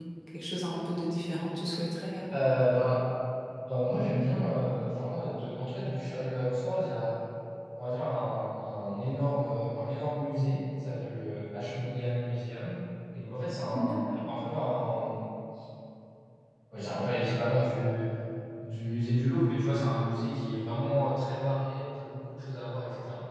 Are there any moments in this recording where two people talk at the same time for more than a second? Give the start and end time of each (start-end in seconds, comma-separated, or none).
none